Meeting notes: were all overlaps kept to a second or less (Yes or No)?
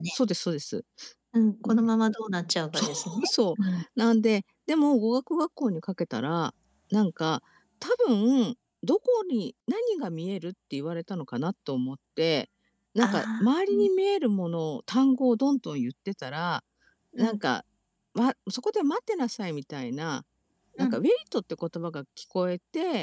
Yes